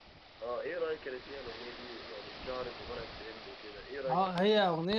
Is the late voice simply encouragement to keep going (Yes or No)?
No